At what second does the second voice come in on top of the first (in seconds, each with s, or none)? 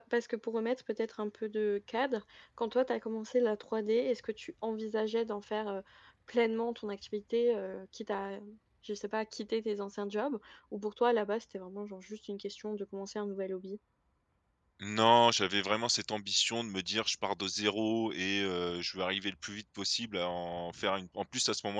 none